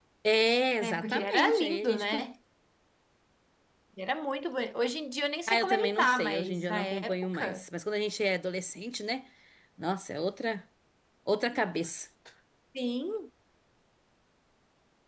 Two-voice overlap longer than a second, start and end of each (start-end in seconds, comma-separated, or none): 0.8-2.0, 5.5-7.6